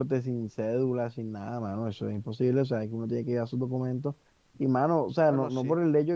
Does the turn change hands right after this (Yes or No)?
No